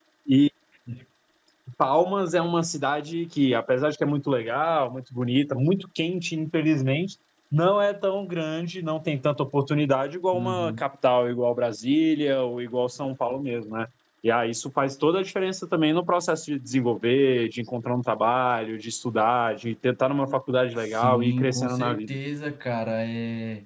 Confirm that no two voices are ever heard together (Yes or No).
No